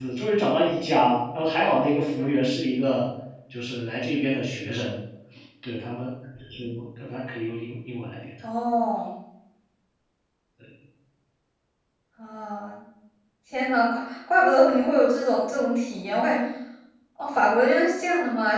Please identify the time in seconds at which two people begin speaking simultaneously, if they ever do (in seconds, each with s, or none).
none